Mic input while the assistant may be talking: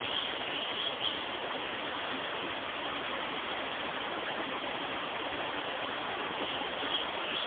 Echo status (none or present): none